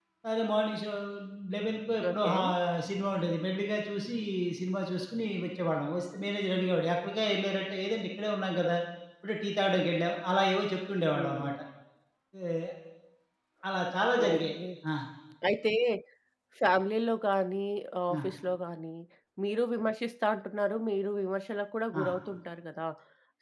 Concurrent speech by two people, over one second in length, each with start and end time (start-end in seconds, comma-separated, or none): none